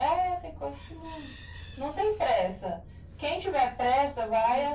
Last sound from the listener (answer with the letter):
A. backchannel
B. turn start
A